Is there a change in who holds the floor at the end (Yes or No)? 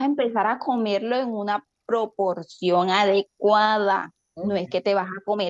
No